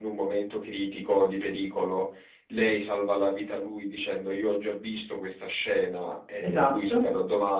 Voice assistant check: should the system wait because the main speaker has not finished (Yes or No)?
Yes